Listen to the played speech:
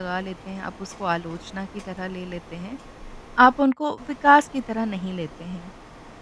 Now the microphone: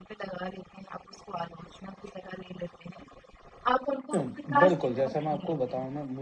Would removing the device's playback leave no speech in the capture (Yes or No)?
No